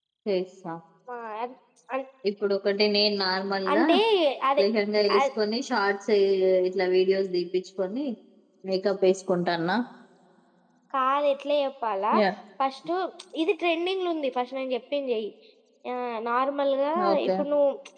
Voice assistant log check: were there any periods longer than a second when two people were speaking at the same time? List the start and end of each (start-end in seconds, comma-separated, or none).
none